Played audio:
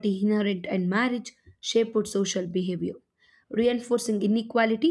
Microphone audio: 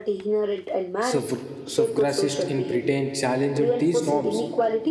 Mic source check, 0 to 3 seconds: both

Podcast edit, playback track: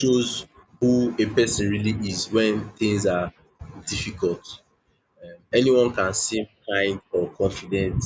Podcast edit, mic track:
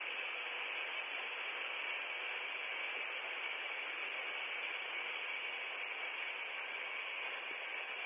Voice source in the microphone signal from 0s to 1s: neither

